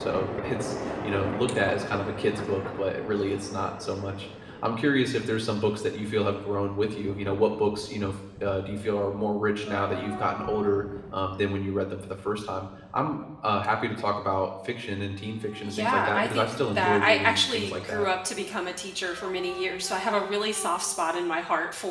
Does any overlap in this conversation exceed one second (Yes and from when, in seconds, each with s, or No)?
Yes, from 15.6 s